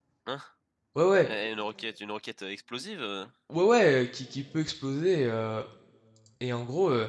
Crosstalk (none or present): none